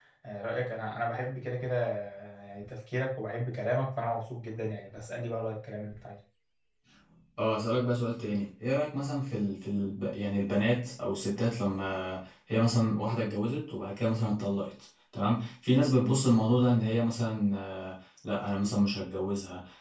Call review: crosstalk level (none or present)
none